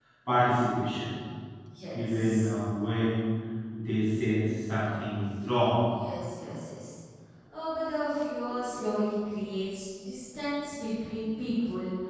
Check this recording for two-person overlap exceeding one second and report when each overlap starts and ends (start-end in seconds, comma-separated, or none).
none